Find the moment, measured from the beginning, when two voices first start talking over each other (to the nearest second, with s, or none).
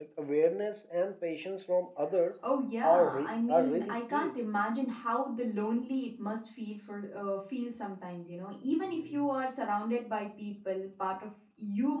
3 s